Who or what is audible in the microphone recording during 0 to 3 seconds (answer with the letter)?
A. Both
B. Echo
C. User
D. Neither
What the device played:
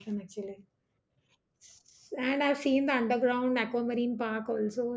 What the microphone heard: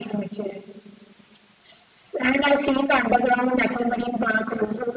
B